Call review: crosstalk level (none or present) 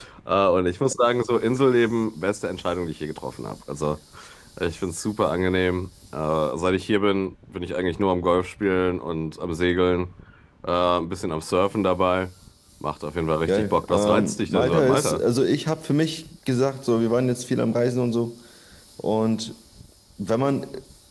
present